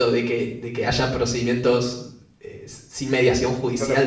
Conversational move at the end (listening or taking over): taking over